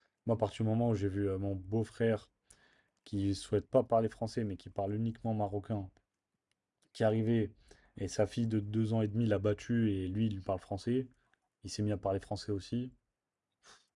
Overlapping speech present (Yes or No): No